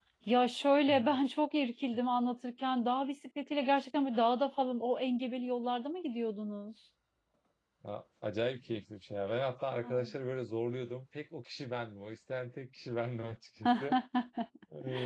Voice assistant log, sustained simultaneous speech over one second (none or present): none